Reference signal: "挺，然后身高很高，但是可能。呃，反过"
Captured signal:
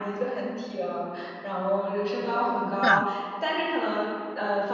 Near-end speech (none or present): present